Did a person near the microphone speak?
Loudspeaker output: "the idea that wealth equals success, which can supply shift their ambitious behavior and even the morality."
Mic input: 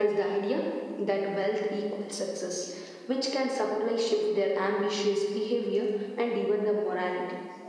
No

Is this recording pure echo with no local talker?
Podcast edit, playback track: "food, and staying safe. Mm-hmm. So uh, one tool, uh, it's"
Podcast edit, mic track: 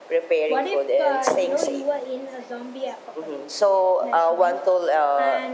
No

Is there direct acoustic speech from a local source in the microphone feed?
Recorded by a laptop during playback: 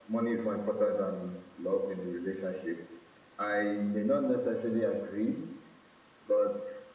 No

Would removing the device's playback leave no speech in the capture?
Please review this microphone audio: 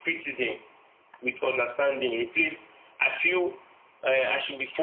Yes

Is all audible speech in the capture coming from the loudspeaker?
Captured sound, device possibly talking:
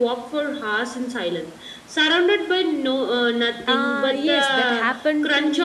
No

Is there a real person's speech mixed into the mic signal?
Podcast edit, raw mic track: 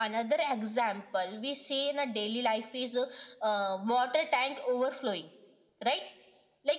No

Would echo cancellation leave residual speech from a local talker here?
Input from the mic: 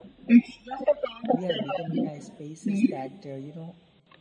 Yes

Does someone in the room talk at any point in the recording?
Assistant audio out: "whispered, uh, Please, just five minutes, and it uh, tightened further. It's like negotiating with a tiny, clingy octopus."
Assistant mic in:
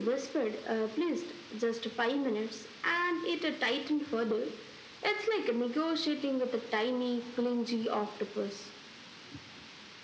No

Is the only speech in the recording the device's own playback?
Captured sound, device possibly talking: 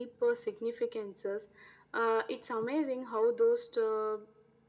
Yes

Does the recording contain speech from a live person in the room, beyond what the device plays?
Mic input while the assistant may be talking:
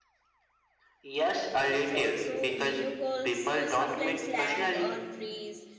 Yes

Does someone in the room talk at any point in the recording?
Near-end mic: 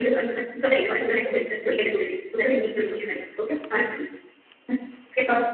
No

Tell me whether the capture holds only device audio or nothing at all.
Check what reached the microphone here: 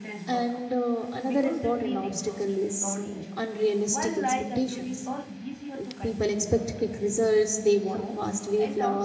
No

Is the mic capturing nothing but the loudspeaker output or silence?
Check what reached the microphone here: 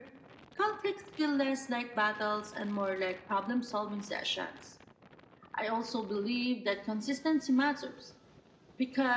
Yes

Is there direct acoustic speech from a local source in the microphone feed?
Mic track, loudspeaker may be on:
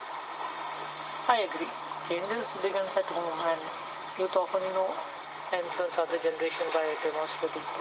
No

